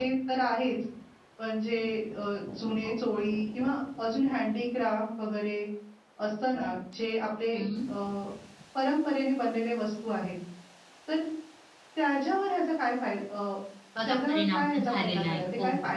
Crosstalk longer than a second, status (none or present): present